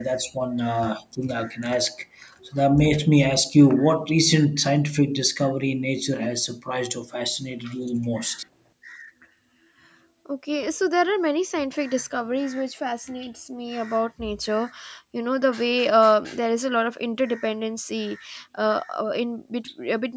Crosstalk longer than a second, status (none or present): none